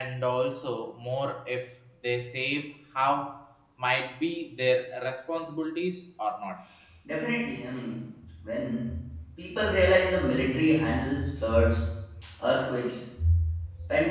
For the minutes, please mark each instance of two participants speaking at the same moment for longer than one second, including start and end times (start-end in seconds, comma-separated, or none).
none